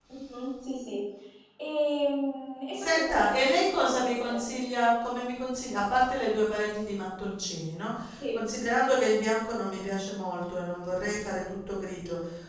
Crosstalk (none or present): present